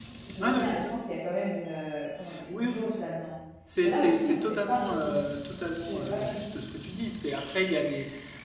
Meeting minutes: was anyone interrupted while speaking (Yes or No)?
Yes